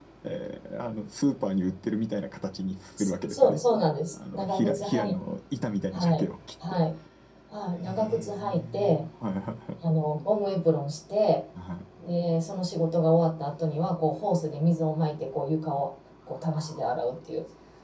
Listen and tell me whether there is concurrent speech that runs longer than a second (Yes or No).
Yes